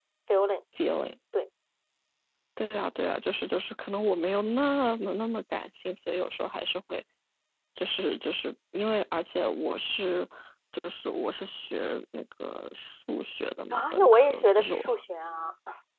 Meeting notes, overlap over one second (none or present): present